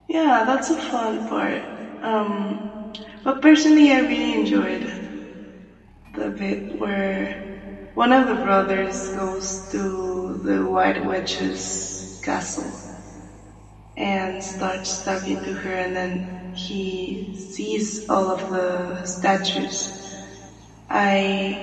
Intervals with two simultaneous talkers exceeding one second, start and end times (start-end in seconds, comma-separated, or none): none